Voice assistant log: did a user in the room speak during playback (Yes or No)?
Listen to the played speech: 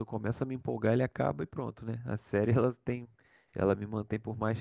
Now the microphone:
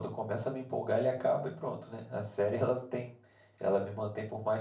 No